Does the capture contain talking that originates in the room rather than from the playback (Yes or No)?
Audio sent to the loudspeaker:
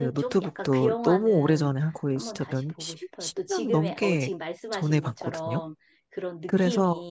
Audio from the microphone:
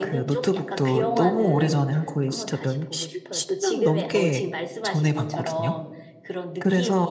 No